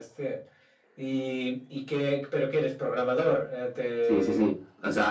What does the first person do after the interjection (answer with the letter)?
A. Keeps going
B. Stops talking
B